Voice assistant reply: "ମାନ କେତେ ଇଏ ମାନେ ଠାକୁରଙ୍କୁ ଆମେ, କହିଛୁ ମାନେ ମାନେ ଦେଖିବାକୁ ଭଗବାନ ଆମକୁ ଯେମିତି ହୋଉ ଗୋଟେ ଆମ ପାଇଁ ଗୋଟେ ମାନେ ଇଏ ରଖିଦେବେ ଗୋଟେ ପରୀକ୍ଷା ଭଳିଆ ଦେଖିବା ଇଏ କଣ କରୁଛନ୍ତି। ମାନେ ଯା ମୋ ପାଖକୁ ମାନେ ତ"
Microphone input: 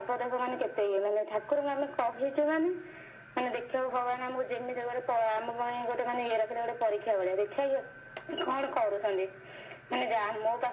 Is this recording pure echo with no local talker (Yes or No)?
Yes